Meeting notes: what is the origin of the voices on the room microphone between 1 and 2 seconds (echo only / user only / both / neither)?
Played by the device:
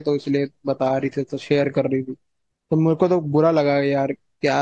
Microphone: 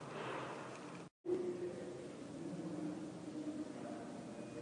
neither